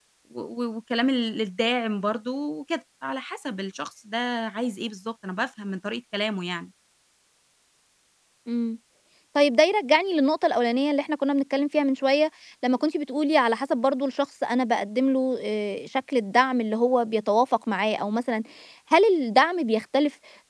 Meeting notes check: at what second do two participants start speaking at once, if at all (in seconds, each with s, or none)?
none